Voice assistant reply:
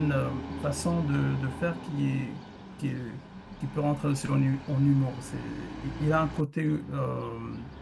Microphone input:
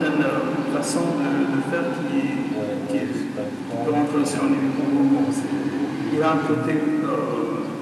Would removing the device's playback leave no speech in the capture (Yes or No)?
No